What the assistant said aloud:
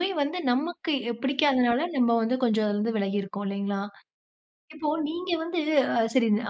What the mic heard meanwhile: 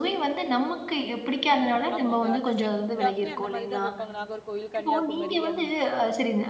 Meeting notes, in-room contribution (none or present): present